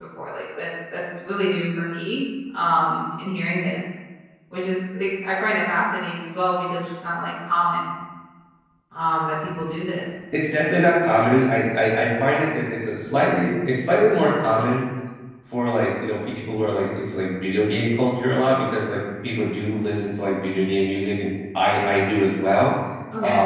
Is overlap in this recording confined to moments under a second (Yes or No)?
Yes